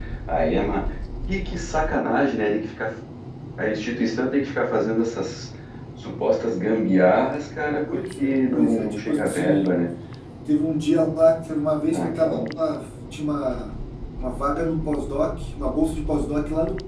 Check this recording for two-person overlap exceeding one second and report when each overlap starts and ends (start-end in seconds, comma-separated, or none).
7.9-9.7